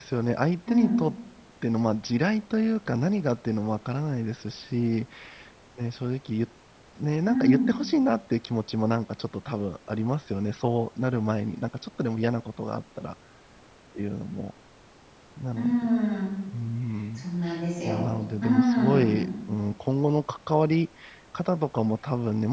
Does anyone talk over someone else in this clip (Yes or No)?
Yes